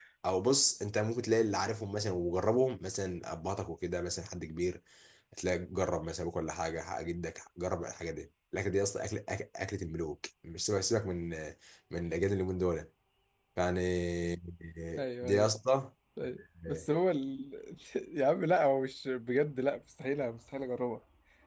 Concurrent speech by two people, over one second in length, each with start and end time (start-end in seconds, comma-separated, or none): none